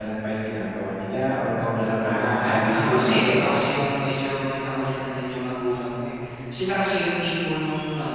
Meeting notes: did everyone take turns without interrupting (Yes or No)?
No